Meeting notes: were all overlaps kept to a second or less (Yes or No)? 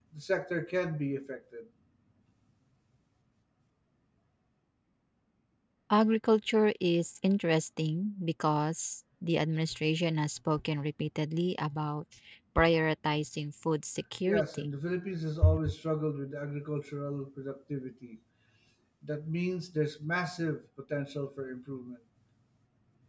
Yes